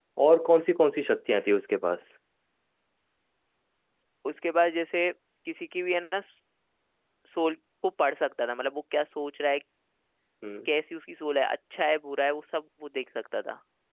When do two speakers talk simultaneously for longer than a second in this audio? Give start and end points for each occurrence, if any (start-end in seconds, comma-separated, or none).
none